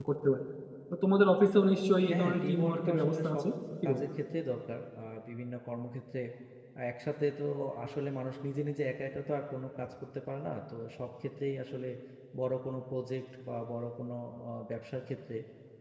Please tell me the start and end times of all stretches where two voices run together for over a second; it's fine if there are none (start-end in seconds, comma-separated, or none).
2.1-3.4